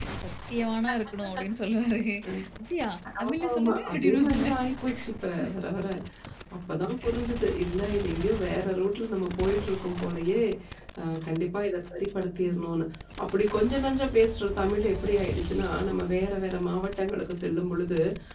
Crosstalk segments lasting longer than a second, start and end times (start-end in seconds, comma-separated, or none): 3.2-4.5